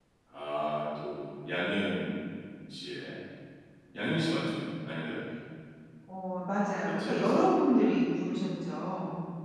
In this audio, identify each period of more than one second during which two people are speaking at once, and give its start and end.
none

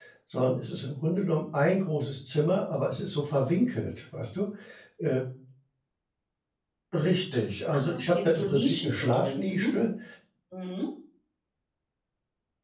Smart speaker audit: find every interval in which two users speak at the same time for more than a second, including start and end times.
7.7-9.7

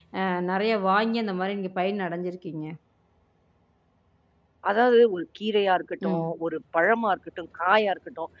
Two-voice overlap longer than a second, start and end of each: none

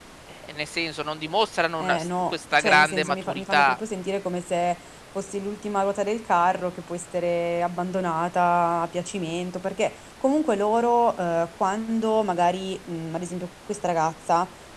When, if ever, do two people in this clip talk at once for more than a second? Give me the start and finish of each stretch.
1.8-3.8

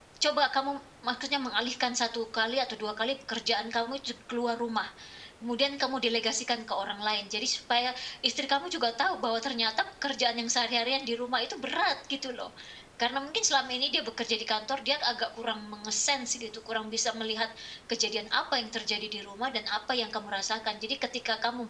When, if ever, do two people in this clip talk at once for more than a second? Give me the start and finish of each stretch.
none

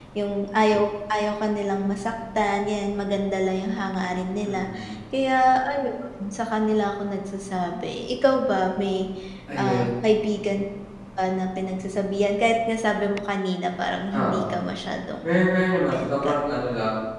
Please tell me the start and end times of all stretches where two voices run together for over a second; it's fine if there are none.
none

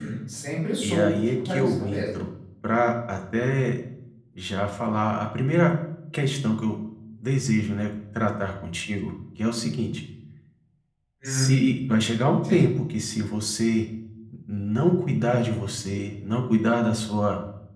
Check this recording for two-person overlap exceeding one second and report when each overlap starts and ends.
0.8-2.0

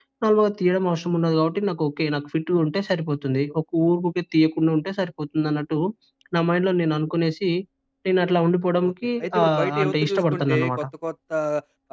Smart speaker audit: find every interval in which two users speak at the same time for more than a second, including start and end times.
8.9-10.8

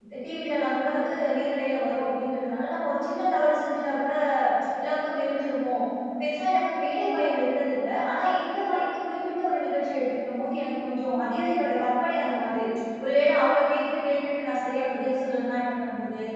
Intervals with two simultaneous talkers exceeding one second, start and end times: none

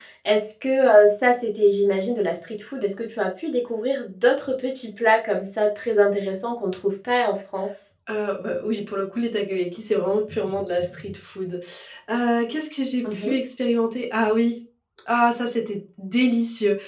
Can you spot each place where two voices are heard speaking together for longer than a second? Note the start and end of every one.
none

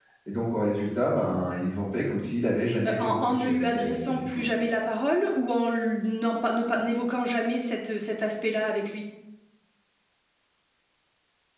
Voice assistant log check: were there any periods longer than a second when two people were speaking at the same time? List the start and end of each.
2.9-4.5

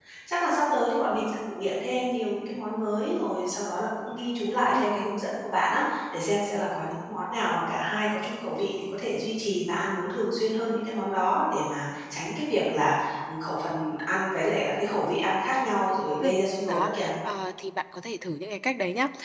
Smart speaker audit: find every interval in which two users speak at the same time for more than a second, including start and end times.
none

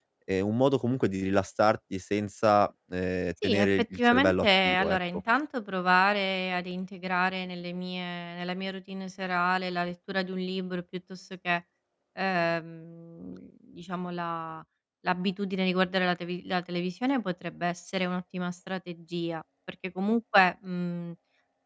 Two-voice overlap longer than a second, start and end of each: 3.4-5.0

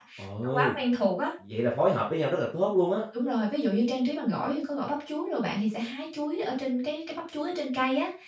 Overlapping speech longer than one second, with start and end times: none

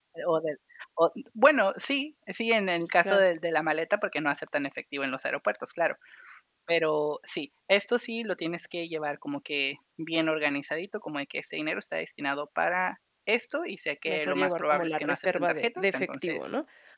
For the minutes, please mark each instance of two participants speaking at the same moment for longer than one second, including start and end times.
14.1-16.5

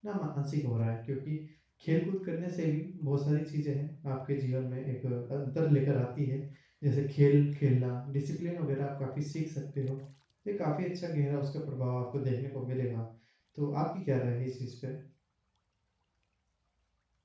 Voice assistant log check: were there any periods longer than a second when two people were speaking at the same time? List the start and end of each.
none

